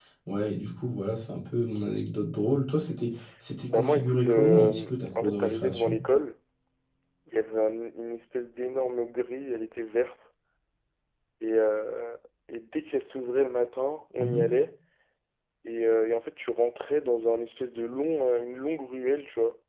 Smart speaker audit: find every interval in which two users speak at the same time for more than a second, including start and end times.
3.7-6.0

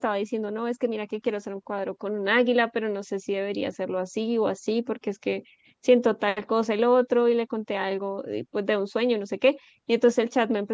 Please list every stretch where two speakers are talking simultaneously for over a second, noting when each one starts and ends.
none

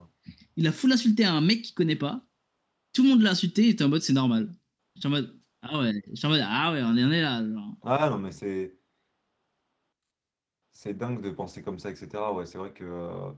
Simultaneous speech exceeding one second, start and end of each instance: none

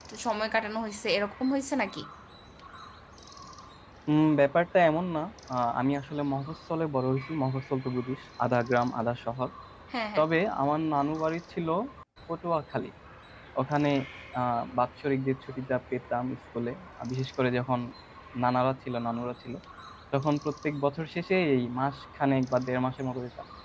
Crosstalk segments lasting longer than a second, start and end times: none

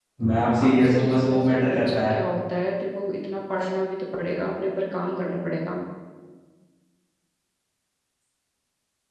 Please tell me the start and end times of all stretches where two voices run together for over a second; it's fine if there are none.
0.7-2.1

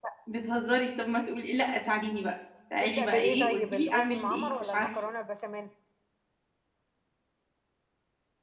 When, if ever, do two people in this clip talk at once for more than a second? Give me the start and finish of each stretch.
2.8-4.9

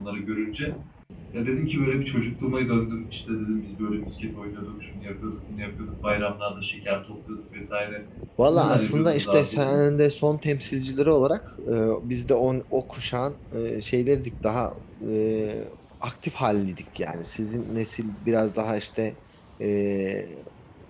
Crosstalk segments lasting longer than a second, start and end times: 8.5-9.8

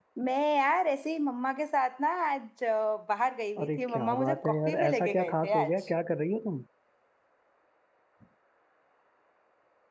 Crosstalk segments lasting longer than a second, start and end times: 3.6-5.7

